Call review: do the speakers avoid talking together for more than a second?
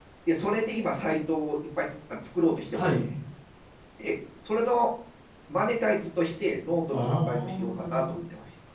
No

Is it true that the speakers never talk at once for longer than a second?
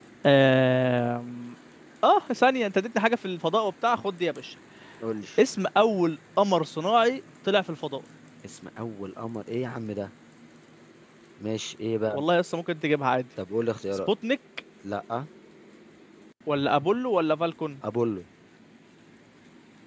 Yes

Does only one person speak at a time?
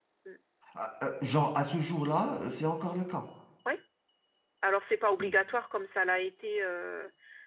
Yes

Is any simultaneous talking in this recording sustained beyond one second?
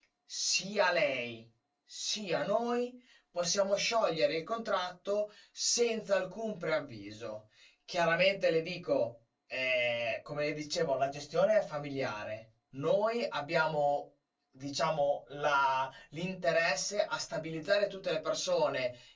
No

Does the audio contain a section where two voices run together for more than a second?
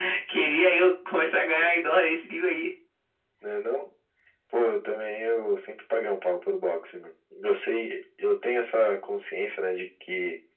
No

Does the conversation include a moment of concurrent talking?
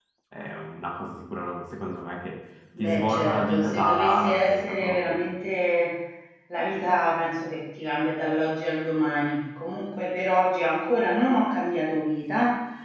Yes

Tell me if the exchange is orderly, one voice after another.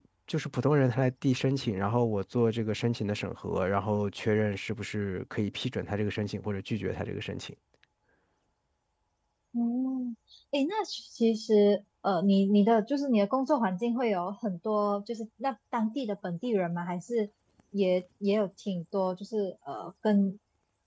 Yes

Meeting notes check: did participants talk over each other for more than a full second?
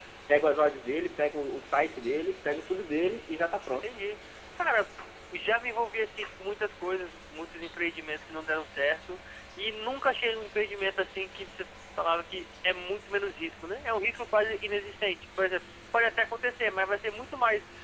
No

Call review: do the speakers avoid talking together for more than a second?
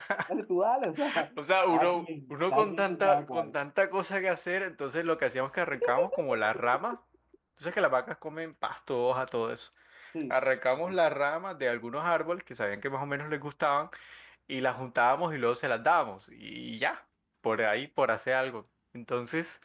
No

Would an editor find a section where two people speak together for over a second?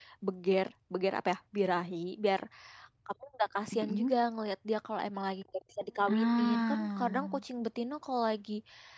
Yes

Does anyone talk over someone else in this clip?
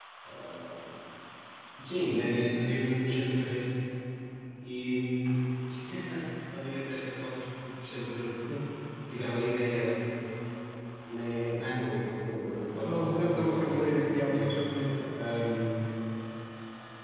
Yes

